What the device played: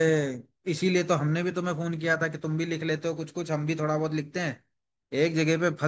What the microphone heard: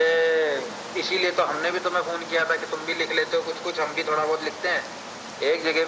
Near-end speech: none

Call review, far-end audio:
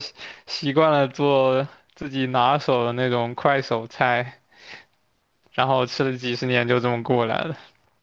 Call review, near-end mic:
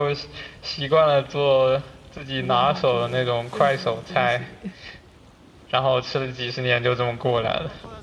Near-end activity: present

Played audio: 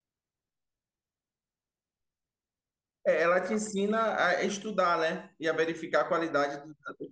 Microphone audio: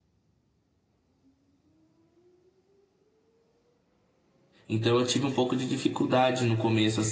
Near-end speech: present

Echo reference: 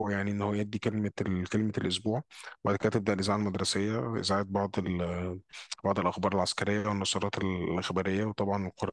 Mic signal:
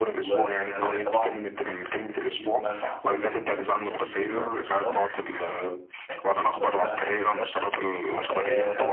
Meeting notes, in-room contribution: present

